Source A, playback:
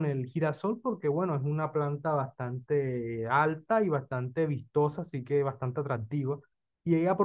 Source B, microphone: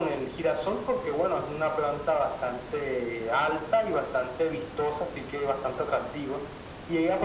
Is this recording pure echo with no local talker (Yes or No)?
Yes